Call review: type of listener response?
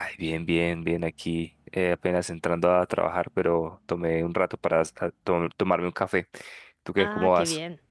taking over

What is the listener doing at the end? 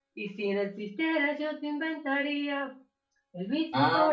taking over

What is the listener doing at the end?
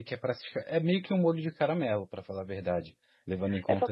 taking over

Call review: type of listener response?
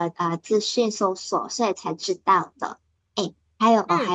listening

